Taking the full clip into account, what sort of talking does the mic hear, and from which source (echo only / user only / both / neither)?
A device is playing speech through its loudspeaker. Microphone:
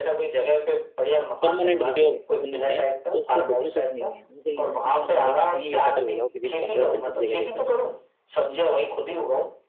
both